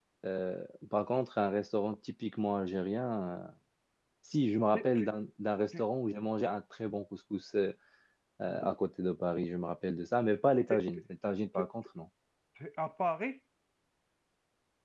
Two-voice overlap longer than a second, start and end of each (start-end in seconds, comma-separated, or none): none